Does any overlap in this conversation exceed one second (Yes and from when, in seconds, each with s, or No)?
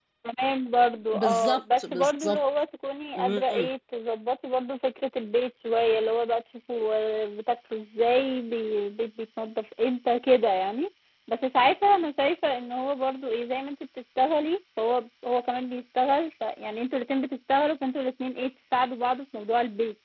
Yes, from 1.1 s